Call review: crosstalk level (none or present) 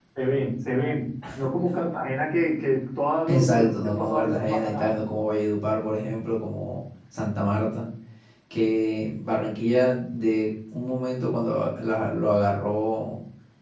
present